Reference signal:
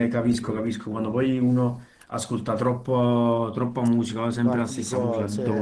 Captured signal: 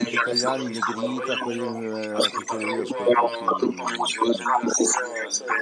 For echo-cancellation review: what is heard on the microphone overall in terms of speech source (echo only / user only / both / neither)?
both